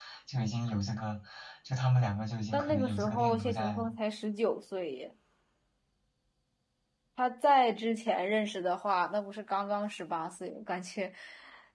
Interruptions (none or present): present